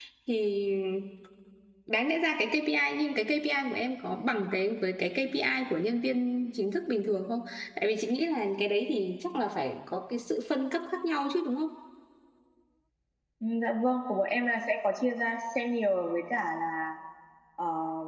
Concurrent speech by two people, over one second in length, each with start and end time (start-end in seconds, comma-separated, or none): none